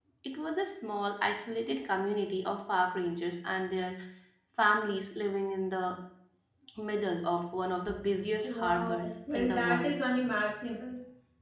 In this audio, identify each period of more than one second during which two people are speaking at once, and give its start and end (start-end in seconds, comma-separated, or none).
8.4-9.9